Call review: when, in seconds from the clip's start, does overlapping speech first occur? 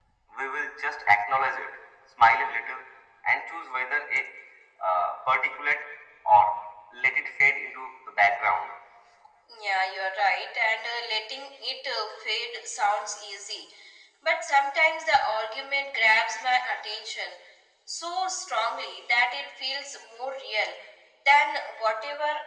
none

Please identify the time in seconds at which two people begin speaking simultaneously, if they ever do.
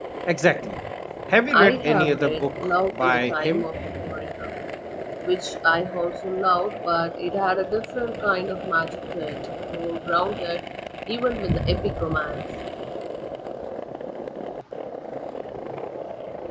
1.6 s

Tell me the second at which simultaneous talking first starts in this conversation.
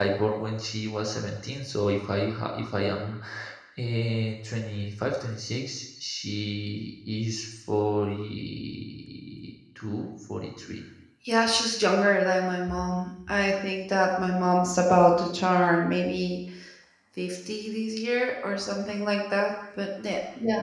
none

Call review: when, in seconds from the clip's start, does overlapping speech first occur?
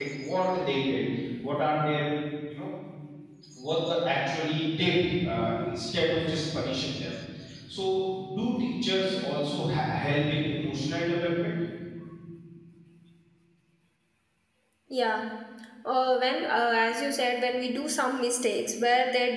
none

